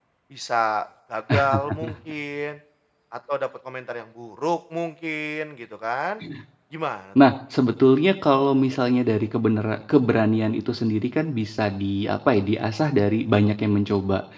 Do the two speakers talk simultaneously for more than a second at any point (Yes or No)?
No